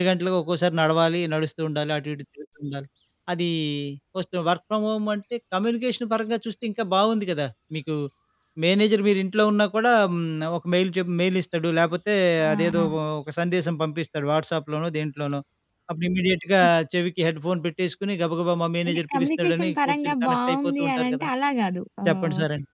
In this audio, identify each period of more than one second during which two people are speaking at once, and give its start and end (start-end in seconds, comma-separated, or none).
18.9-21.3